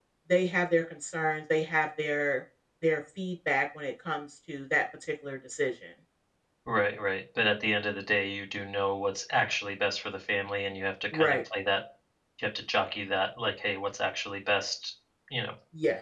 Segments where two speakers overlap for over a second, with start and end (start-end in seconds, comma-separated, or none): none